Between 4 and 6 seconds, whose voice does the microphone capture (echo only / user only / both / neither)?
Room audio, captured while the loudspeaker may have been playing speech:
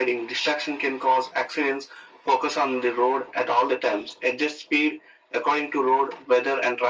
echo only